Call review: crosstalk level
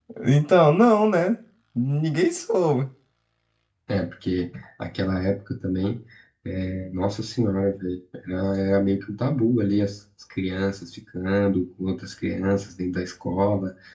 none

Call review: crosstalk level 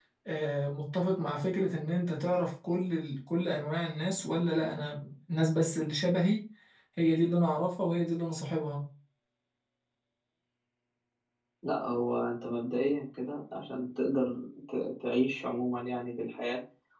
none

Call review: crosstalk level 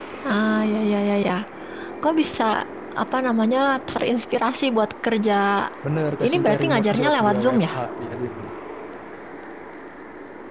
present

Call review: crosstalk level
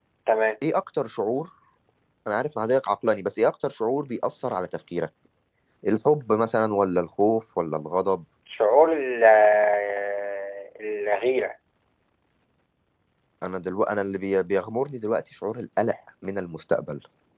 none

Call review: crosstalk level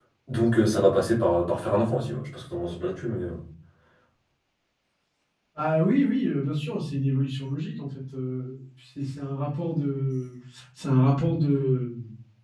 none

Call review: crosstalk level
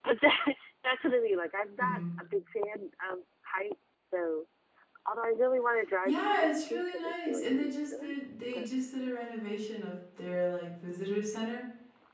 present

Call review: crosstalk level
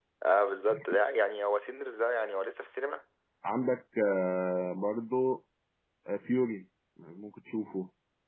none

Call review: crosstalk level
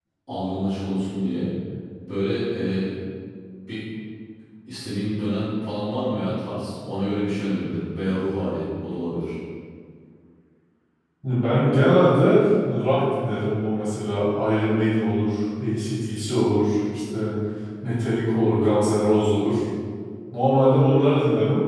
none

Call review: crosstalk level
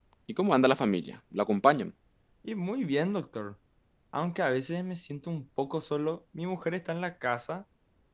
none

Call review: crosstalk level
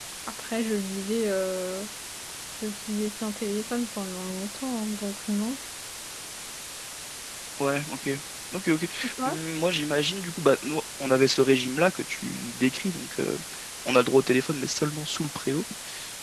none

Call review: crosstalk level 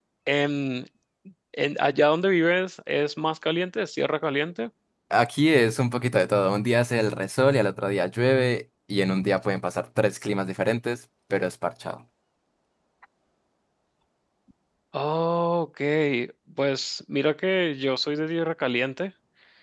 none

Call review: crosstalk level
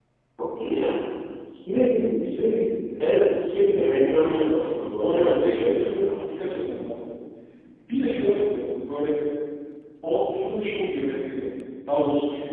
present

